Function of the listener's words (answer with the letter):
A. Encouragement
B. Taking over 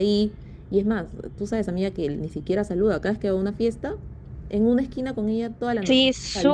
B